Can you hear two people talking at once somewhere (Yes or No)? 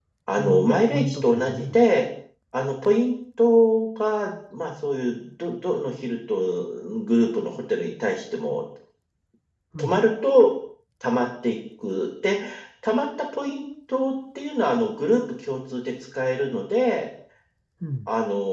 Yes